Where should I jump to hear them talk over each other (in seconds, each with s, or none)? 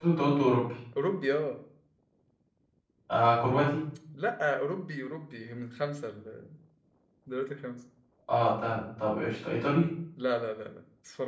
none